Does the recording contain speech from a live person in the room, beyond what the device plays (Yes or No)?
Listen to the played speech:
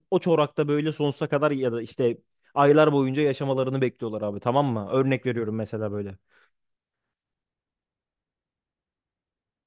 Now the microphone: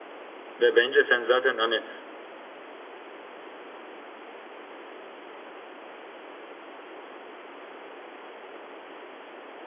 Yes